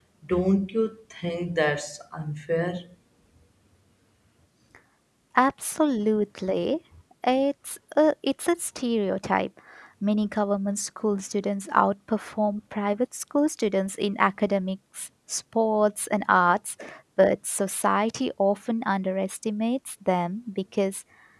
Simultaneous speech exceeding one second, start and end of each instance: none

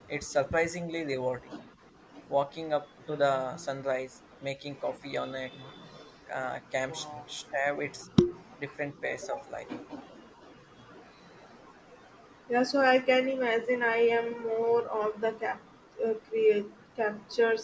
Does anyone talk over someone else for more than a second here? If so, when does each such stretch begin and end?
none

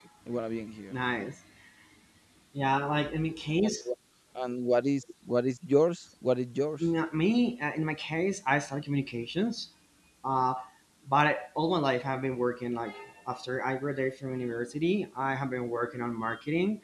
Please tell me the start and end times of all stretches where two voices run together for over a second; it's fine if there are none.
none

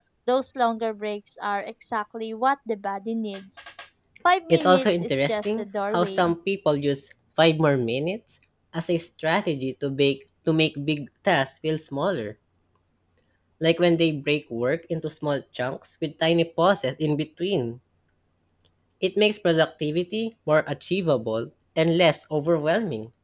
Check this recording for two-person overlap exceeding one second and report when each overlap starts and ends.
4.5-6.3

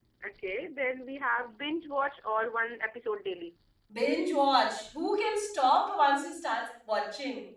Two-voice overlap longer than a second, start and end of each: none

